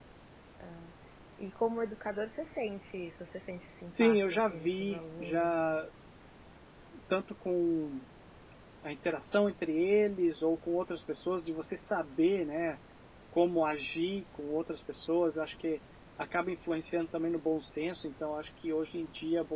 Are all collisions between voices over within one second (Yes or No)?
No